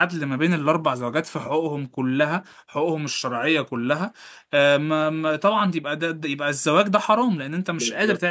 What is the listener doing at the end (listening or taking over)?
taking over